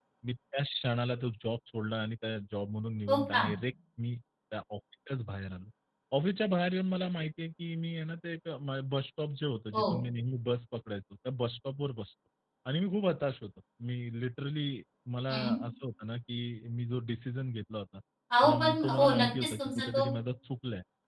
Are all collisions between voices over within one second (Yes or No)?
No